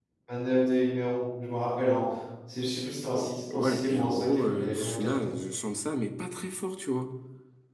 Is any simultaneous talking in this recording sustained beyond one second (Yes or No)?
Yes